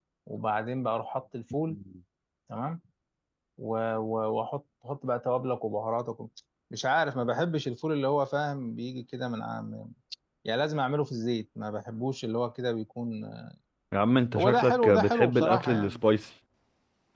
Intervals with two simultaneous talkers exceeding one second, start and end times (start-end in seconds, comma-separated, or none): 14.3-16.0